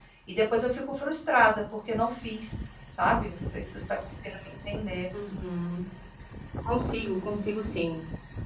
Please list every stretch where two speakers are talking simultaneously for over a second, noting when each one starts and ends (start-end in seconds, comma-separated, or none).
none